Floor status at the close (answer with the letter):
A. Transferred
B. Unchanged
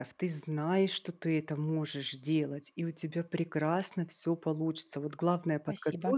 B